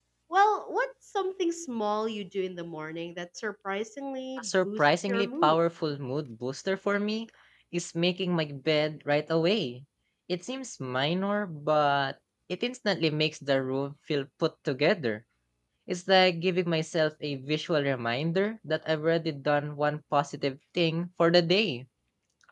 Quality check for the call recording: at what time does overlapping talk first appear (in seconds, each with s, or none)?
4.4 s